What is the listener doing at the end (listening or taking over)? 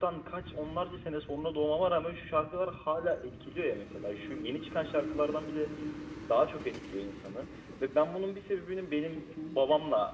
listening